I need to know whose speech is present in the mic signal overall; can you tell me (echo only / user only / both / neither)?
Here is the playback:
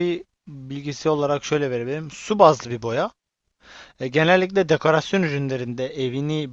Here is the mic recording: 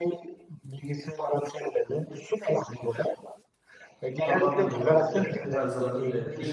both